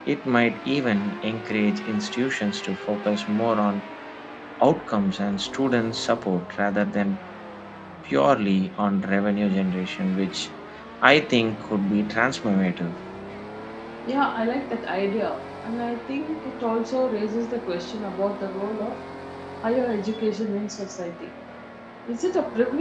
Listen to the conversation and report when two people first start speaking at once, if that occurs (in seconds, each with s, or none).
none